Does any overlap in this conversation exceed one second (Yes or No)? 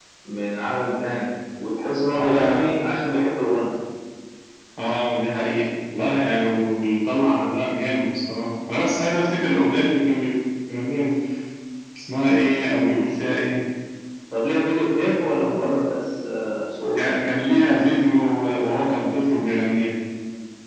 No